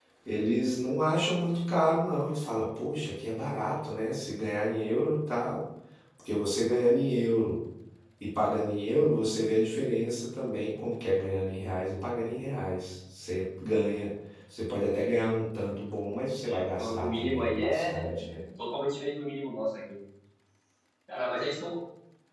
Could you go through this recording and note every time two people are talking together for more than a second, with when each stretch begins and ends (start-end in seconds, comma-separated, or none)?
16.4-18.4